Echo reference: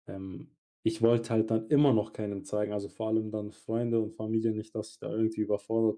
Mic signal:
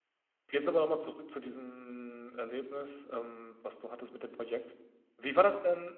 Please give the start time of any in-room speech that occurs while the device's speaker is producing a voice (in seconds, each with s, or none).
0.5 s